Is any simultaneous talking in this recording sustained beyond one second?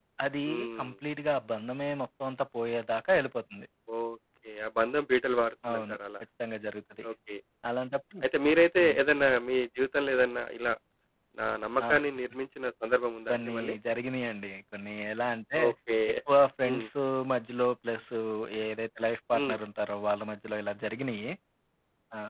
No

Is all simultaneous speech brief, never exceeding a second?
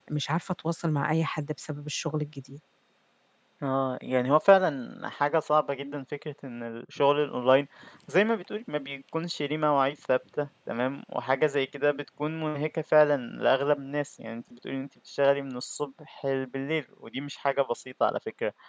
Yes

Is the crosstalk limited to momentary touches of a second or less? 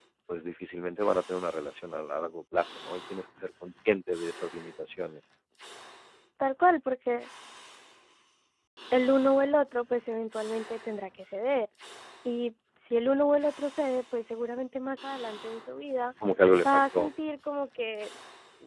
Yes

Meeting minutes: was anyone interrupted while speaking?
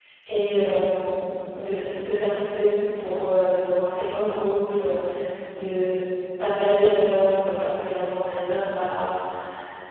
No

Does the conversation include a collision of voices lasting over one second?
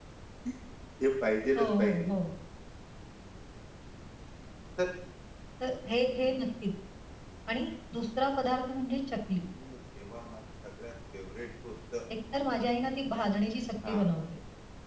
No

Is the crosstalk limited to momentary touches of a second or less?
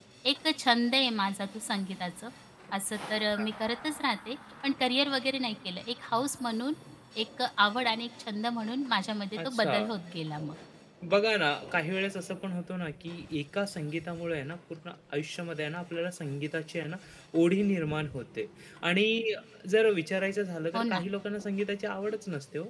Yes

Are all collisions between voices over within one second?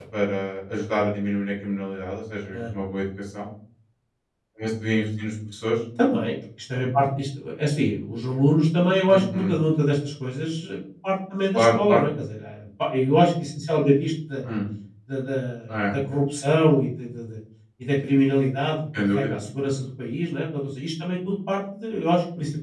Yes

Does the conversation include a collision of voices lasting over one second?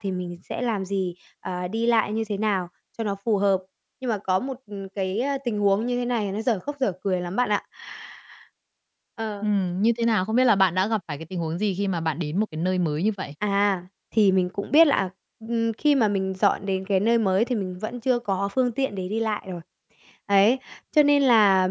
No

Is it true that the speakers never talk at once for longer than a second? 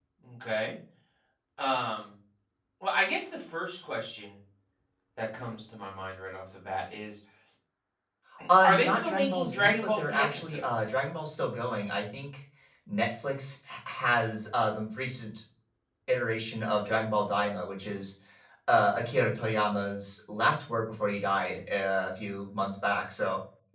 No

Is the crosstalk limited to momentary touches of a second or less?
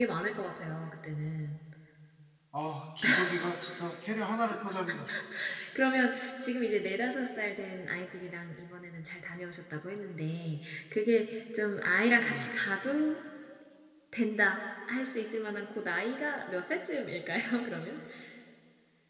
Yes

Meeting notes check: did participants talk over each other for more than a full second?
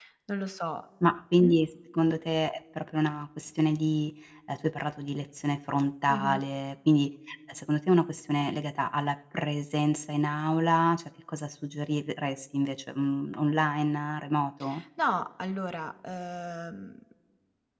No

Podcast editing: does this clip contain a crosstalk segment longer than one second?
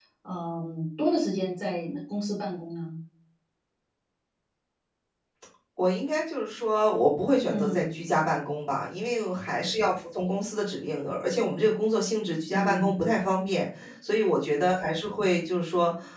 No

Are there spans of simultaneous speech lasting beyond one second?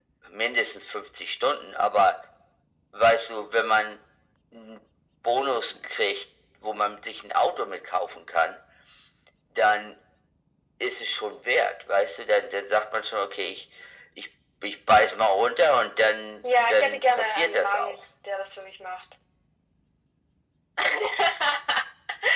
Yes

